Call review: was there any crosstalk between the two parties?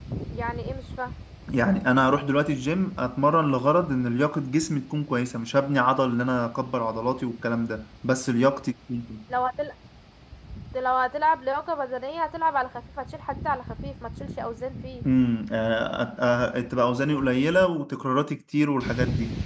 No

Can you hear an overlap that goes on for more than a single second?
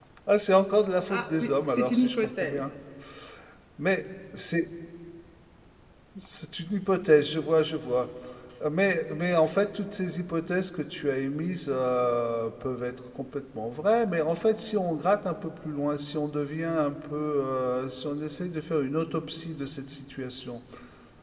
Yes, from 1.1 s

